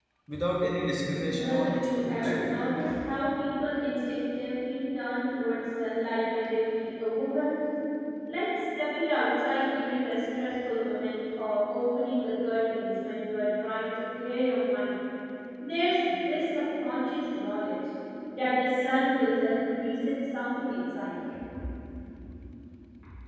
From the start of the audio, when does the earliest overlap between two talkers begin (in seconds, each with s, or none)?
1.3 s